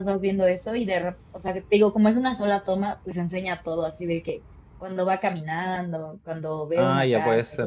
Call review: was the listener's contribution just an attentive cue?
No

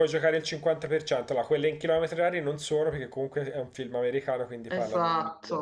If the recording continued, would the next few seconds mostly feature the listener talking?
No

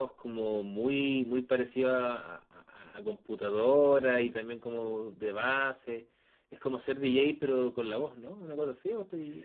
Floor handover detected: Yes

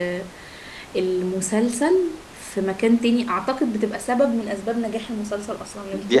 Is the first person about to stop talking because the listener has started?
Yes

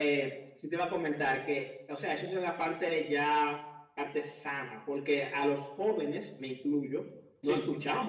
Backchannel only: Yes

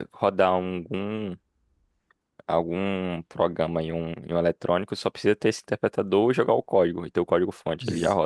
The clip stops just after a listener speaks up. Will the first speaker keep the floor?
No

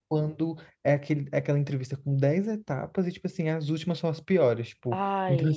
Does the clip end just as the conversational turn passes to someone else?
No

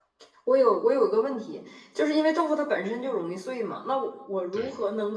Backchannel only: Yes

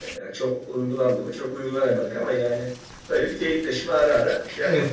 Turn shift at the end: Yes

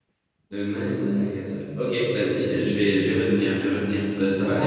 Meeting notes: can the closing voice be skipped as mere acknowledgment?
No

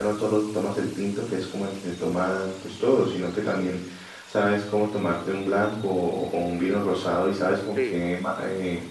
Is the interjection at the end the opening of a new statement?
No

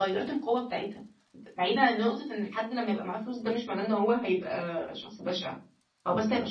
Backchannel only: Yes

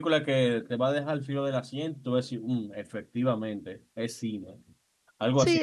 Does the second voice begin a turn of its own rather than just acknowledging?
Yes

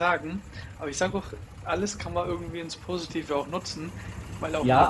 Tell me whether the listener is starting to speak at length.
Yes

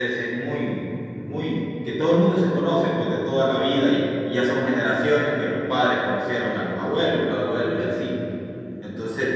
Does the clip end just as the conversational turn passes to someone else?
No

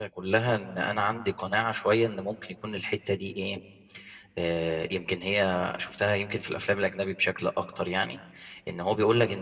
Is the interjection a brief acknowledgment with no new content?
Yes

